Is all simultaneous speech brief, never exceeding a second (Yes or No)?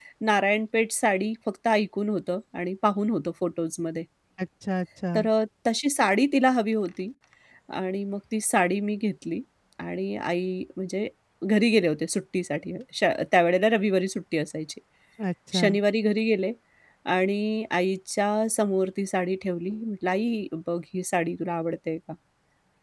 Yes